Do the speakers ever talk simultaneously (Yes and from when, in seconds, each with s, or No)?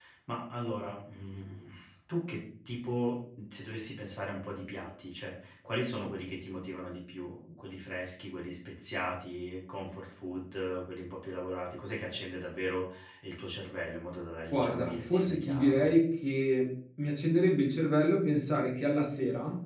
Yes, from 14.5 s